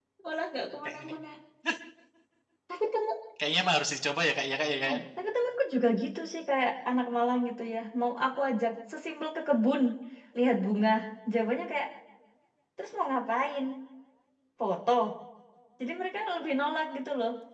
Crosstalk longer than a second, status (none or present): none